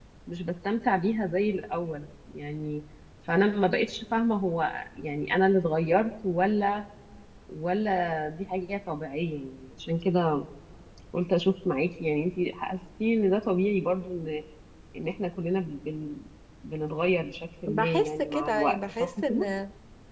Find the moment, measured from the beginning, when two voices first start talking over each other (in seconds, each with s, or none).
17.7 s